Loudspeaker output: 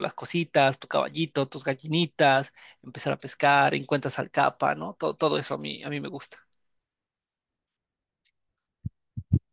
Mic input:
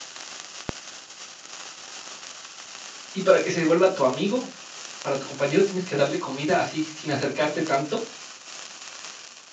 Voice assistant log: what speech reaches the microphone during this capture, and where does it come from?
user only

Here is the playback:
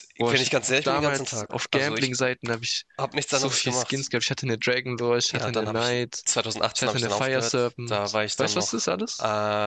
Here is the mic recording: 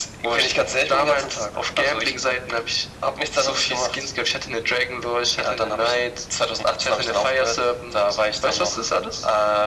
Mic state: echo only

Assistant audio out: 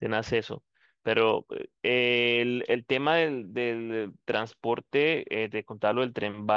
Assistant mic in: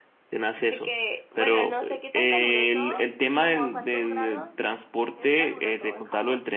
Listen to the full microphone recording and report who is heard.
both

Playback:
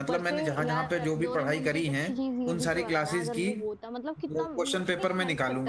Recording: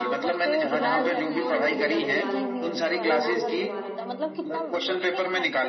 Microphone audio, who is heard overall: both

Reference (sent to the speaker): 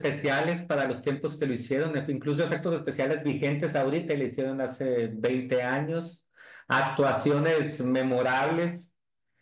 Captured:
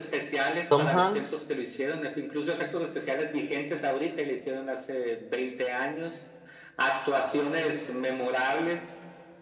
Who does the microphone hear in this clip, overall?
both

